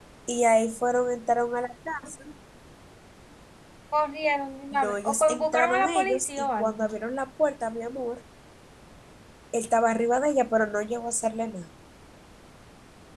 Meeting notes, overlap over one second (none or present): present